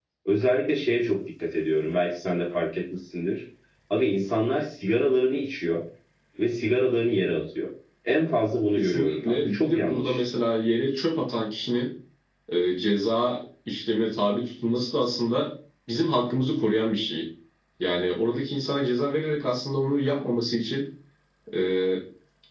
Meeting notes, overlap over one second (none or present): present